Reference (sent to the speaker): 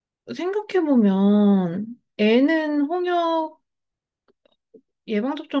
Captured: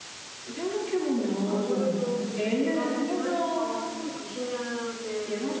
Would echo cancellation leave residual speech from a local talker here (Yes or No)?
Yes